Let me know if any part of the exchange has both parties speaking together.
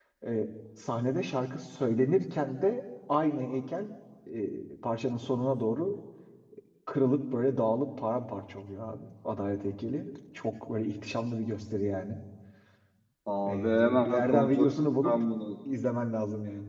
Yes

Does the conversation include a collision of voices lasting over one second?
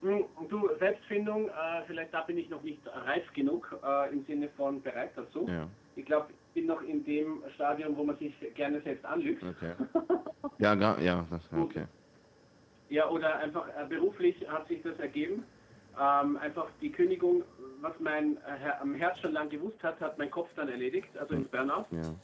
No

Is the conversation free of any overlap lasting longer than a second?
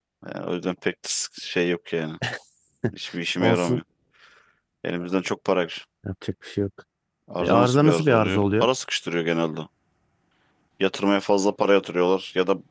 No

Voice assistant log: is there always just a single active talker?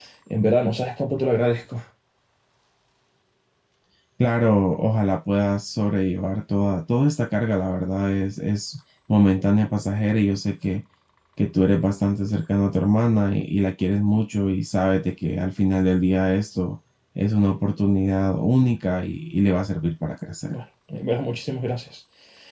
Yes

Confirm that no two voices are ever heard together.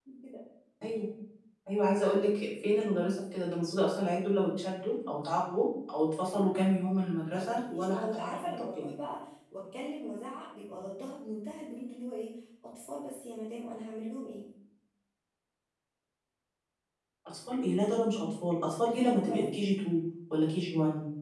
No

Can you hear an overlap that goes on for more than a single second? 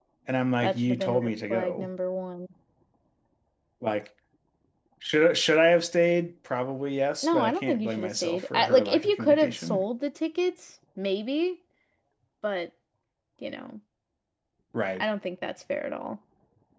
Yes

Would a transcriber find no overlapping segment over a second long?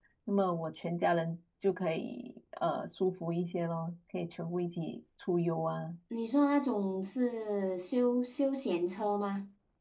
Yes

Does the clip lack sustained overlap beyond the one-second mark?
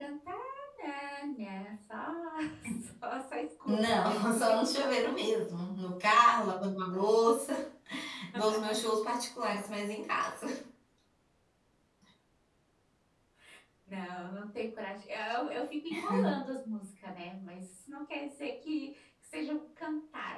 No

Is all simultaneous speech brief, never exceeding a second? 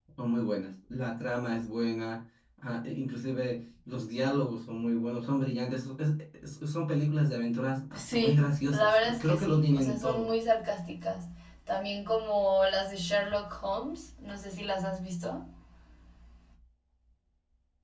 No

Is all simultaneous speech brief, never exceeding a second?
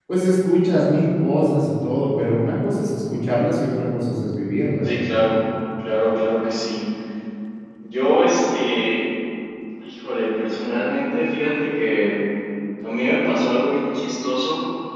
Yes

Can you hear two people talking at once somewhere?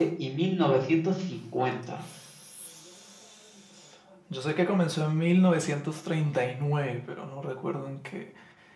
No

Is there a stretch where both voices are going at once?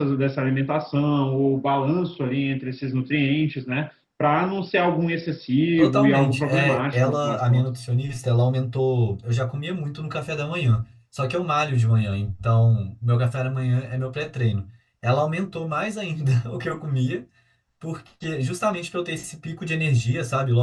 Yes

